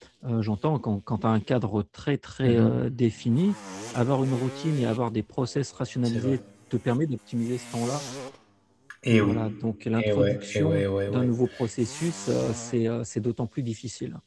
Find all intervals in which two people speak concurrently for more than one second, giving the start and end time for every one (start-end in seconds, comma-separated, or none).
10.0-11.3